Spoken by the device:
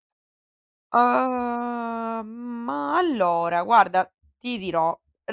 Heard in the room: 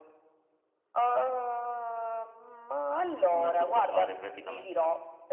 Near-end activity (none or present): present